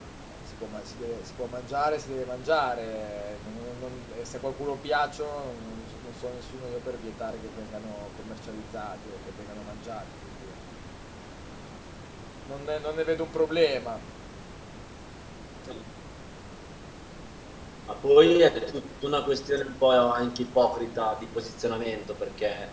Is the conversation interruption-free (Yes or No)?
Yes